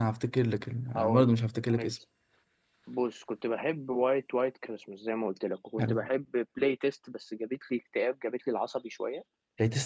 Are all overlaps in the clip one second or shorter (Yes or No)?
Yes